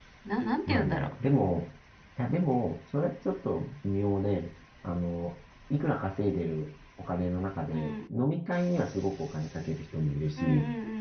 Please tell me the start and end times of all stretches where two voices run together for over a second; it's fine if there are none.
none

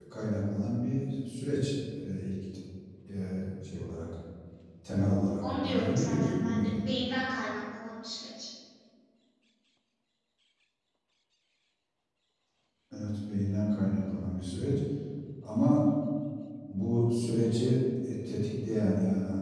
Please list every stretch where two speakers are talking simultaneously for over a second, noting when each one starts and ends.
5.4-6.9

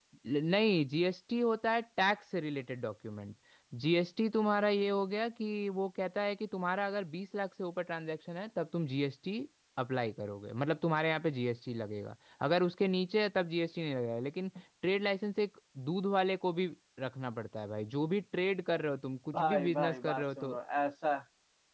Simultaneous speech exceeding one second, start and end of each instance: 19.3-20.5

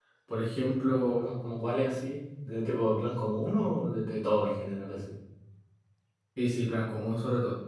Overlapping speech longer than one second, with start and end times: none

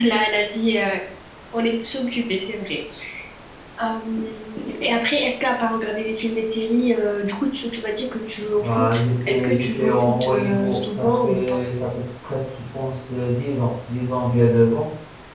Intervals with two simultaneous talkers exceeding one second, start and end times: 8.6-11.6

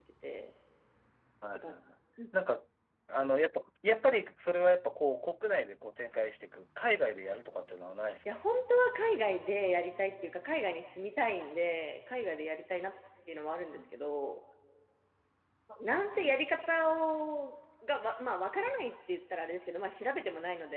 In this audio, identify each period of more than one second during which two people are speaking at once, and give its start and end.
none

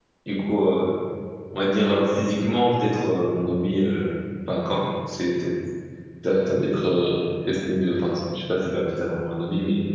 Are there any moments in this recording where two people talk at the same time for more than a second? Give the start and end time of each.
none

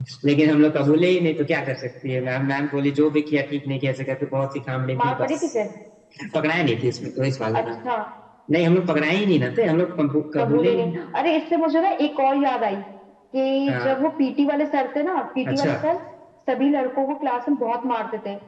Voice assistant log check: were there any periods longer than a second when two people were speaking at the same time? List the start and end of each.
none

